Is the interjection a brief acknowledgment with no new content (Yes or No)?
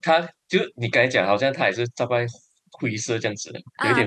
No